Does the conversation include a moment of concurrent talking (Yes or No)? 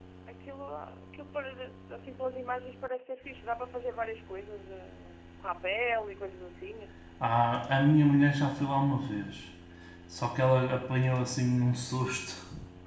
No